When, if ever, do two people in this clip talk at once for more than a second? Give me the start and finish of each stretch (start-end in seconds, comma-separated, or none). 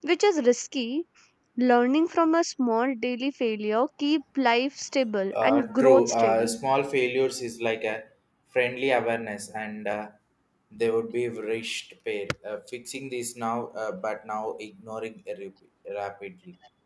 5.3-6.6